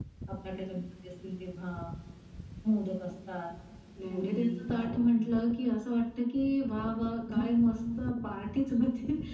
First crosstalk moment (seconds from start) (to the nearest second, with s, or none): 4 s